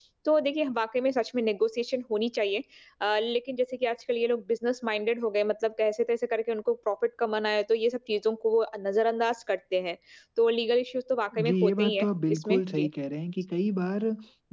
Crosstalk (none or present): present